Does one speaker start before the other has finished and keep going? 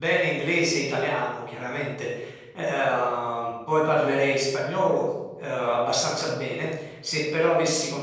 No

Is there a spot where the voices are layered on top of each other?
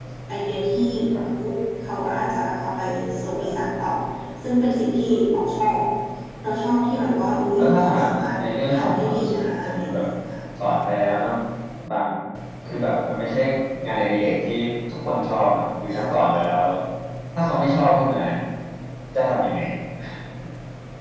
Yes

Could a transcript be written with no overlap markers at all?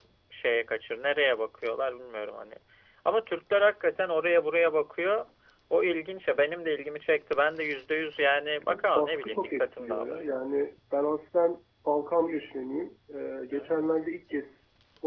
No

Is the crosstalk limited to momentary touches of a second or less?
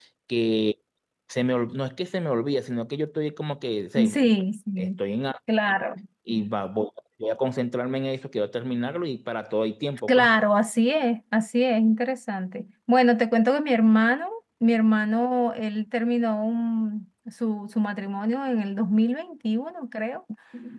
Yes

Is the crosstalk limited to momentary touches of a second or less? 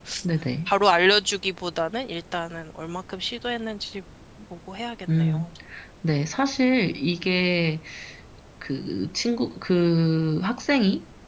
Yes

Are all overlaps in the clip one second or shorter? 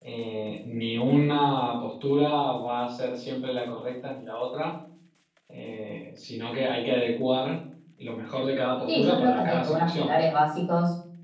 No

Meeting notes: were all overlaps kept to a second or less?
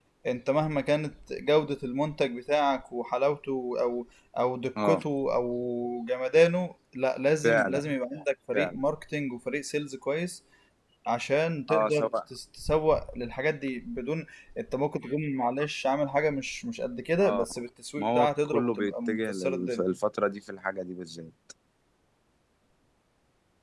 No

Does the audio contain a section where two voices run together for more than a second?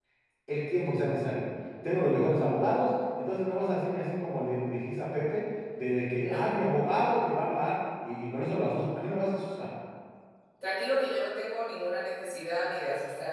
No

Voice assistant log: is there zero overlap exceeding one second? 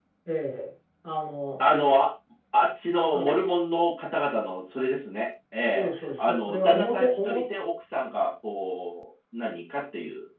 No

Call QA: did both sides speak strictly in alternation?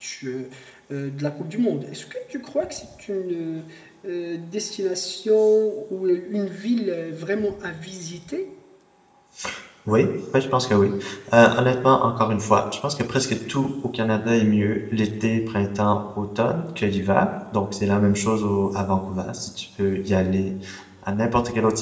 Yes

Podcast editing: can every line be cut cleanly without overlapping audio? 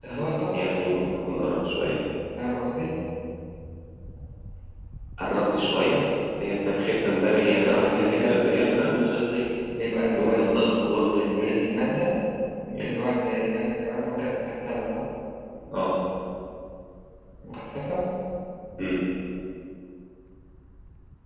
No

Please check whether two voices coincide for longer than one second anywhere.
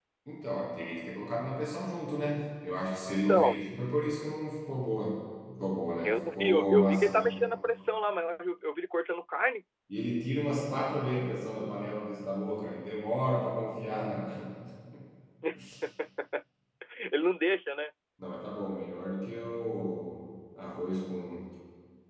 Yes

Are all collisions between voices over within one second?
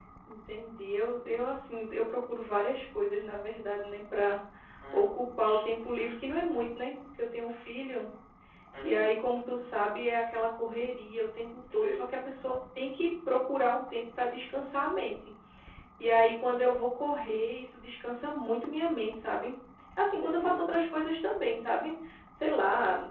Yes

